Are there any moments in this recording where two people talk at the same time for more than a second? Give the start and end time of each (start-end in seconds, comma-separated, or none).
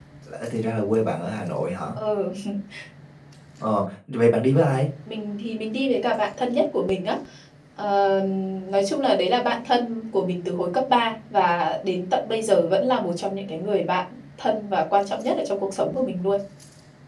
none